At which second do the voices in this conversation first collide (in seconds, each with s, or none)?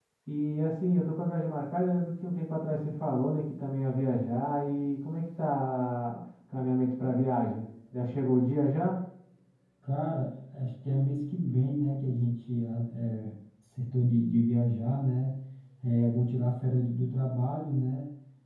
none